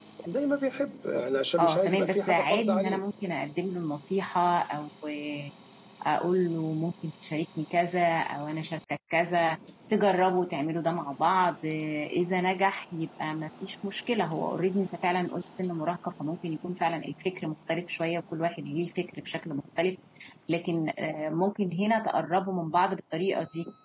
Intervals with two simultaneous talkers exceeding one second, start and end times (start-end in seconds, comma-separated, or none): 1.6-3.0